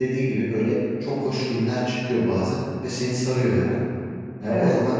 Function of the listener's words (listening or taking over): listening